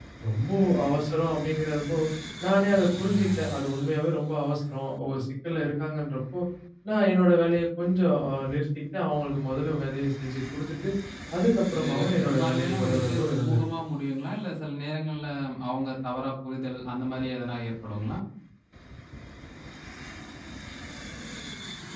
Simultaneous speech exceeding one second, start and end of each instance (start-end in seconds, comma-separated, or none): 11.8-13.6